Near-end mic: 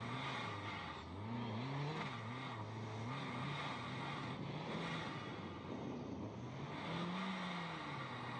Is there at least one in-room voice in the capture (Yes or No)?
No